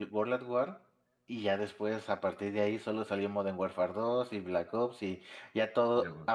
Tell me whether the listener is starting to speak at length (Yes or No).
No